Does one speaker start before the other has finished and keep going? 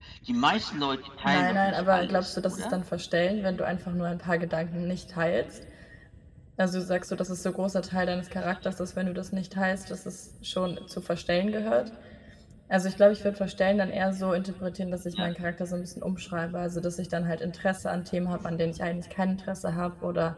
Yes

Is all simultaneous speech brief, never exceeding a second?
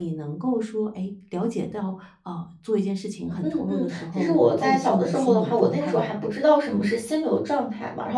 No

